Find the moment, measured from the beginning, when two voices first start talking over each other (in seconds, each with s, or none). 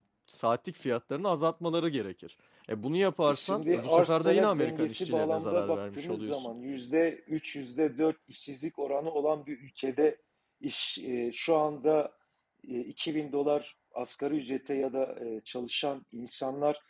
3.3 s